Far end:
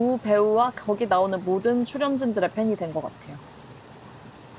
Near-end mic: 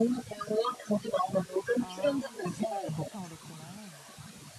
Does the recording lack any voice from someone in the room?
No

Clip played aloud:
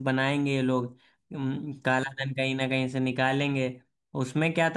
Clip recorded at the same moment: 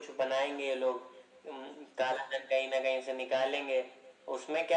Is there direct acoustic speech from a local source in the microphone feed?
No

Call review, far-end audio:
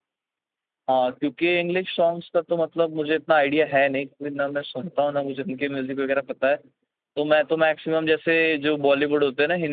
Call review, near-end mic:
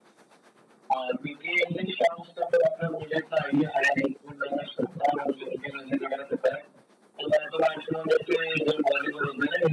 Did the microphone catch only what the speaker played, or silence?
Yes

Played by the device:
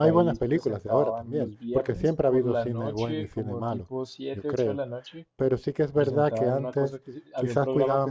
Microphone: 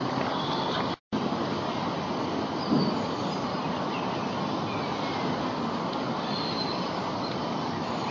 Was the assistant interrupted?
No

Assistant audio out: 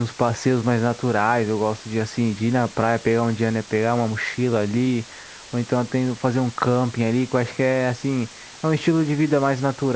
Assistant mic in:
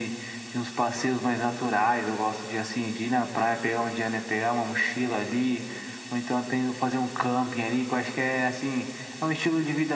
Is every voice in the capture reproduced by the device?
Yes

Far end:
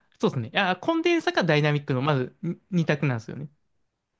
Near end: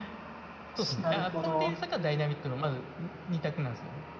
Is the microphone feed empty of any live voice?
No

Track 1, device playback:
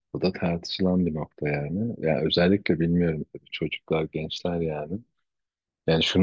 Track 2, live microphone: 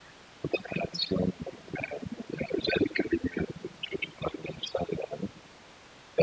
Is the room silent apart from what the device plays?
Yes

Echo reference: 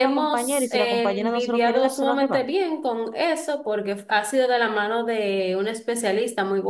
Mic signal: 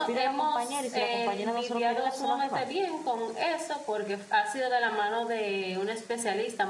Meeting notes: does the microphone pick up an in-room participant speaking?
No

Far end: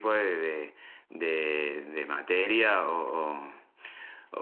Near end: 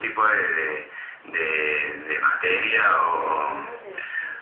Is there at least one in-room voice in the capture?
Yes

